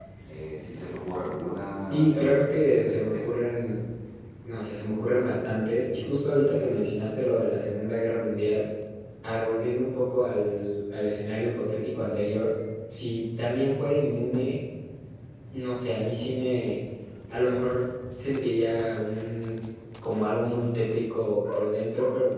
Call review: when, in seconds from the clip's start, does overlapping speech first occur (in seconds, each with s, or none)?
1.8 s